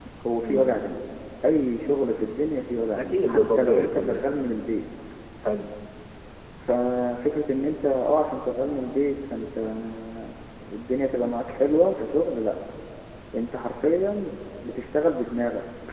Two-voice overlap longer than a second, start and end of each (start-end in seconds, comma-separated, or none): 3.0-4.3